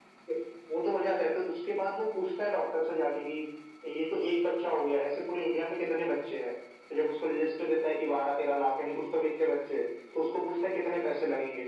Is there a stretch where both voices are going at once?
No

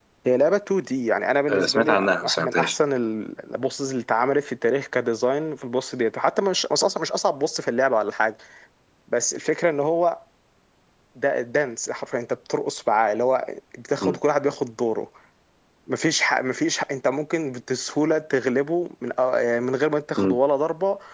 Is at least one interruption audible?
Yes, from 1.5 s

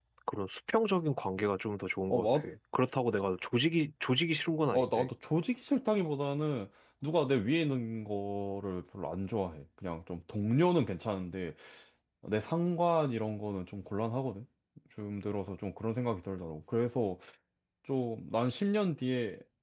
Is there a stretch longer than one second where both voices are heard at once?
No

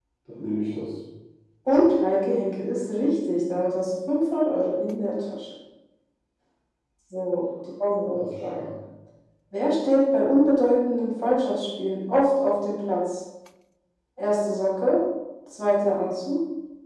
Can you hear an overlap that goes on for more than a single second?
No

